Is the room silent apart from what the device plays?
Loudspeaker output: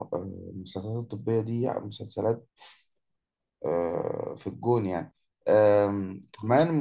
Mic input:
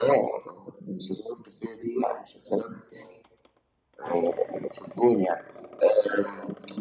Yes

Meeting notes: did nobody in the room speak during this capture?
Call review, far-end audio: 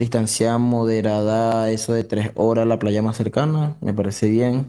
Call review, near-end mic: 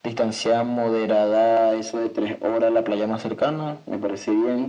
Yes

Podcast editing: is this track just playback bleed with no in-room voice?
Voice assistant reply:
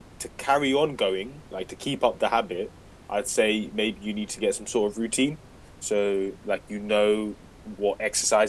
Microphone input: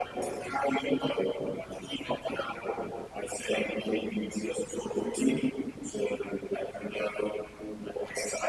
Yes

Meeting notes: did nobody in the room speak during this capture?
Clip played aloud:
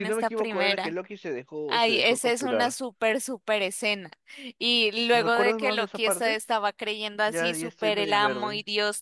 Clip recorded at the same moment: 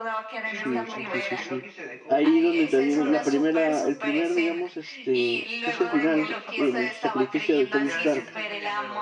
No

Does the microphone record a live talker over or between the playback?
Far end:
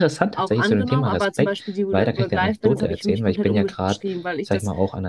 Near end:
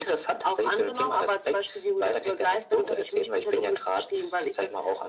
No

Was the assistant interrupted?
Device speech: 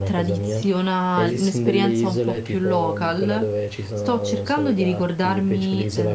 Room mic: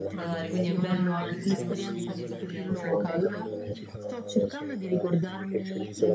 Yes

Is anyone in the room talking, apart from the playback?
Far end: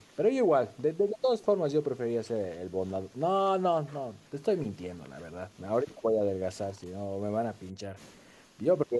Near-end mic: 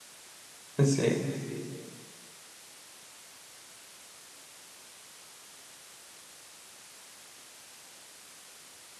Yes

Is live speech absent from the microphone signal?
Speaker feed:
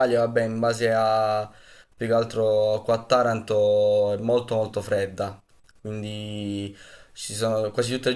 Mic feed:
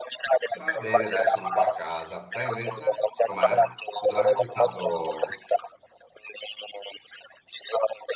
No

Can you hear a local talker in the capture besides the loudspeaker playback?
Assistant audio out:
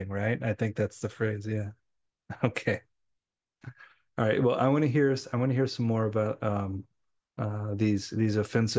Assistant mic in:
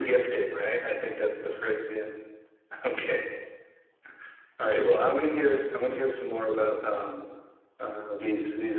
No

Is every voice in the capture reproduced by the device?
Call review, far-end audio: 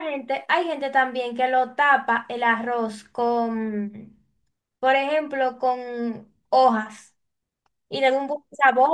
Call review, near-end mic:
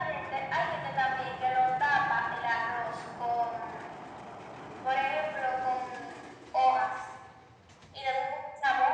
Yes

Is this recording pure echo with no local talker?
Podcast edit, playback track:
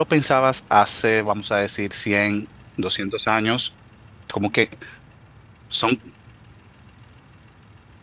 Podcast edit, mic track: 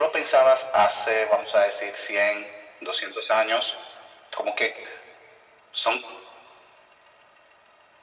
Yes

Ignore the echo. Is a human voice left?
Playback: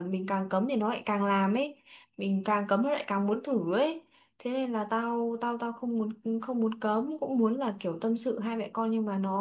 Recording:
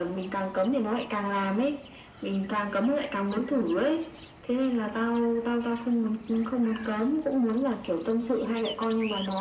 No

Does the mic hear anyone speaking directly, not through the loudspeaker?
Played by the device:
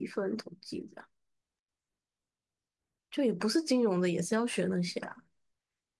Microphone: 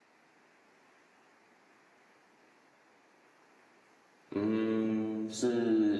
Yes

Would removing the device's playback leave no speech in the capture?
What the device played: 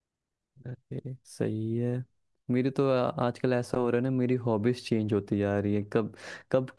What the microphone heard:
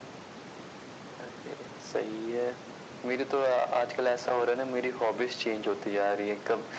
Yes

